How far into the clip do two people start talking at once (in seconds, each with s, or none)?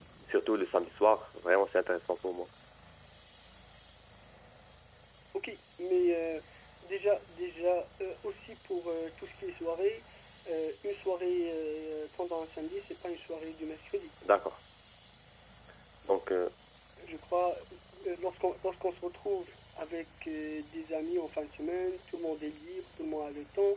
none